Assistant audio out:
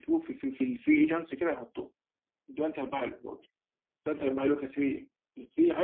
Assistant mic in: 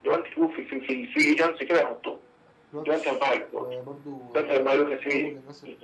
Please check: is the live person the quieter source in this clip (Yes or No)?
Yes